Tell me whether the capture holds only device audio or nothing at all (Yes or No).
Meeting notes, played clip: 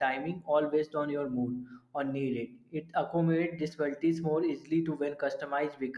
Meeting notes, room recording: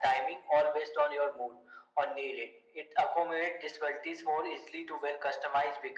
Yes